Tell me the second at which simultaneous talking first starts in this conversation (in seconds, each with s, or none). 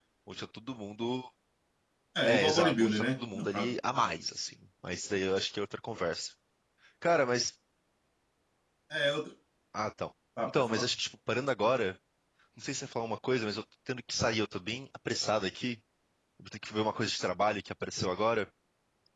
2.2 s